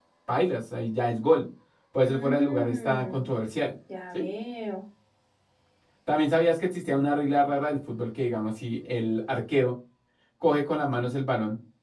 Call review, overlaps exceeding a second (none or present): present